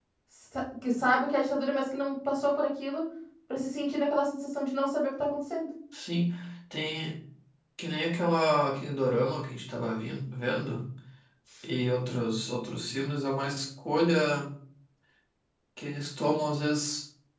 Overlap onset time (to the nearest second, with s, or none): none